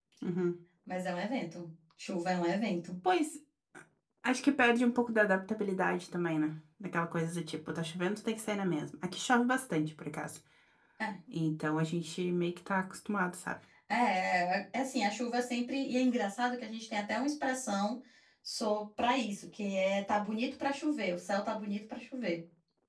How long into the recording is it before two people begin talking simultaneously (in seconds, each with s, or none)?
none